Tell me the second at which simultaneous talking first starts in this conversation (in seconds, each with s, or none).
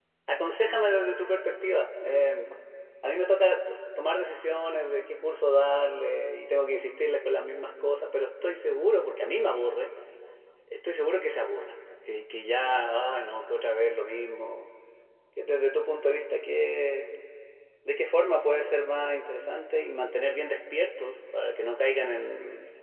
none